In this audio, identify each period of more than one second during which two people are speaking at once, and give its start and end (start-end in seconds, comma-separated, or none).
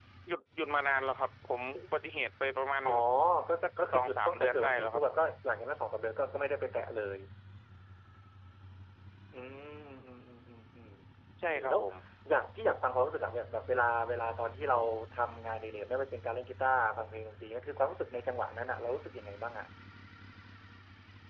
3.6-5.0